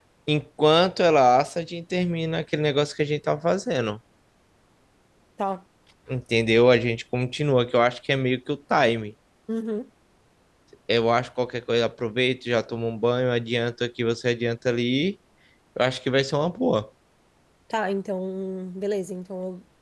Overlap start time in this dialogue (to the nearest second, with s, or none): none